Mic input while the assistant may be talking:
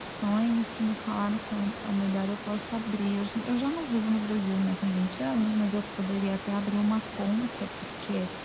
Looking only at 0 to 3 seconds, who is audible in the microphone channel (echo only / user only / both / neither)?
echo only